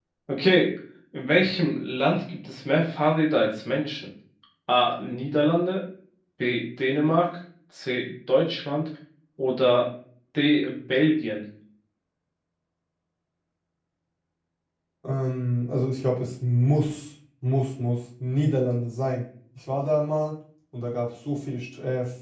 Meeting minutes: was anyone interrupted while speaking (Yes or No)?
No